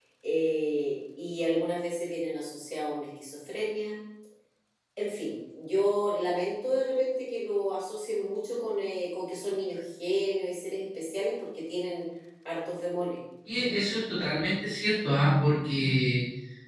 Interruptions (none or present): none